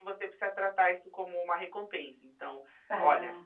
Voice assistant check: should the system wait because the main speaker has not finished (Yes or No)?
Yes